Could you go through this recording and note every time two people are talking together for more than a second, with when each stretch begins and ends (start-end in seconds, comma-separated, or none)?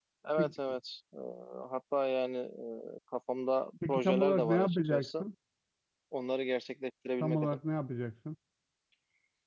3.9-5.3